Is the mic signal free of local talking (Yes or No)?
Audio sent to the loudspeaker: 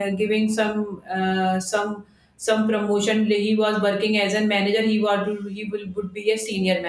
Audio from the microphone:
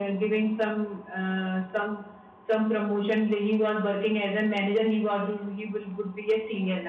Yes